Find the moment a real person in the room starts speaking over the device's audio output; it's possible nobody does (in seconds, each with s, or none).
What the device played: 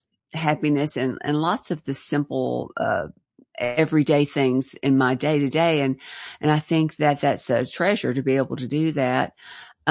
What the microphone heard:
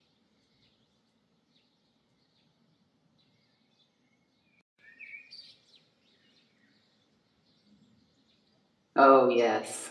9.0 s